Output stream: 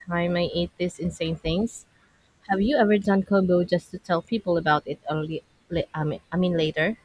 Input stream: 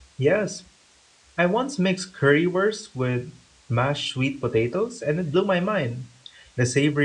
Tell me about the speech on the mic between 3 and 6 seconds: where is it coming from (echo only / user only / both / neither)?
user only